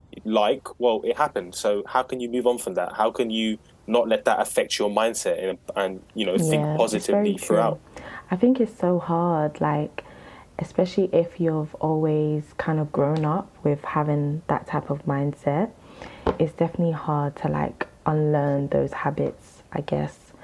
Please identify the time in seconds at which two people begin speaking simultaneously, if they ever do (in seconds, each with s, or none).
6.3 s